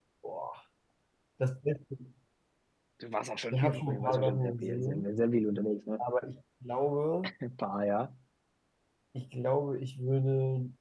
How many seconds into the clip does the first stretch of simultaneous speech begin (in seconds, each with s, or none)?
3.5 s